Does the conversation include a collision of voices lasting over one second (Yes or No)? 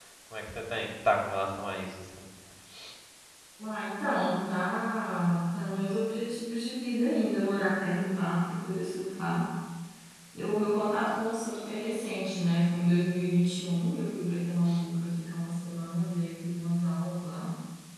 No